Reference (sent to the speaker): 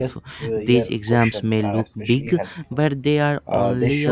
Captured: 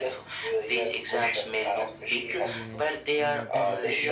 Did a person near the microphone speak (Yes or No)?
Yes